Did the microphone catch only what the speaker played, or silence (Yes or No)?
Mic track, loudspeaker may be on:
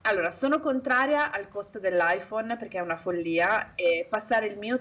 No